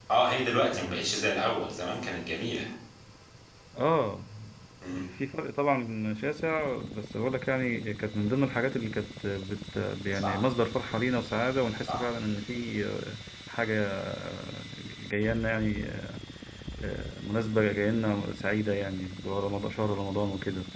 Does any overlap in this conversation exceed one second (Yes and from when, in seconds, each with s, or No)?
No